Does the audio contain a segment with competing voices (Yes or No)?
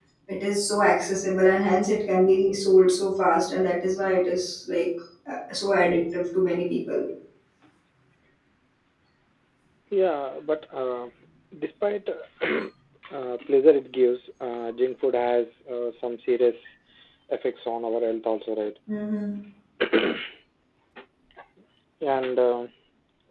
No